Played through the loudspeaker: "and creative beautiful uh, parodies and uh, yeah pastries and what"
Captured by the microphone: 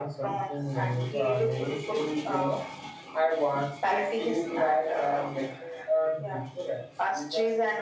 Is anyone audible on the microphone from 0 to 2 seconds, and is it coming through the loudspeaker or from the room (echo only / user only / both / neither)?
both